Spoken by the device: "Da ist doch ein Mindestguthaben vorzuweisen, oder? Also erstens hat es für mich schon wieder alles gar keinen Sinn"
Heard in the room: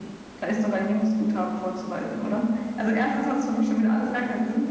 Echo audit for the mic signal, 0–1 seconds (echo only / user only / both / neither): echo only